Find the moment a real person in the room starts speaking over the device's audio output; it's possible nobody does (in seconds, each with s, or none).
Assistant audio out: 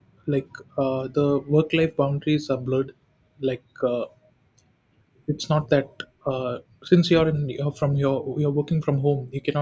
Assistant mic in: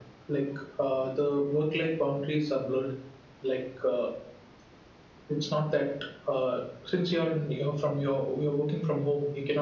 none